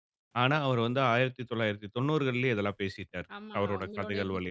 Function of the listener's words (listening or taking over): taking over